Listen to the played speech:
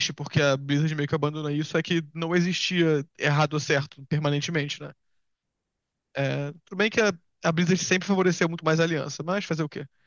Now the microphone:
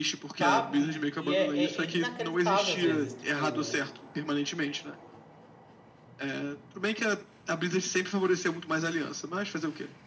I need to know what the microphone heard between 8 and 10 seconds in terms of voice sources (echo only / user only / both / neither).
echo only